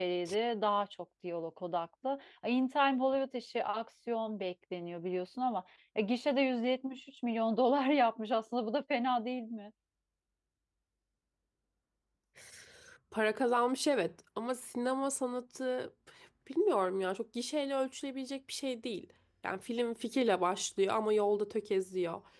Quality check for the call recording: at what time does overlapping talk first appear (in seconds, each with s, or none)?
none